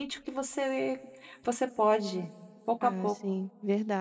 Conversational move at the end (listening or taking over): taking over